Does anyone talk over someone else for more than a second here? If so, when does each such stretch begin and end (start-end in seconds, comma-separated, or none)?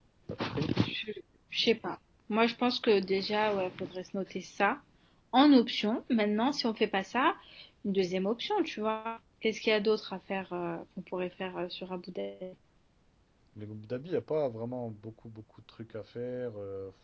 none